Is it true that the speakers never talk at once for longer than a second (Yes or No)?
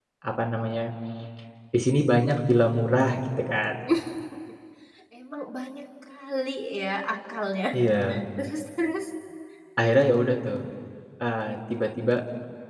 Yes